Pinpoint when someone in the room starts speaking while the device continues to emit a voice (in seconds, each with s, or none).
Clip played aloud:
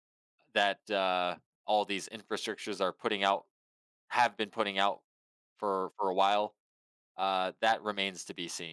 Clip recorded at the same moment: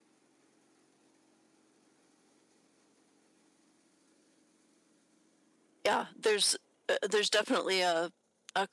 5.8 s